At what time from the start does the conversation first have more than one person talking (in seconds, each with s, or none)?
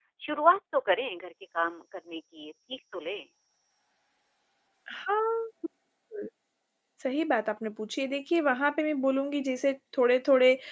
none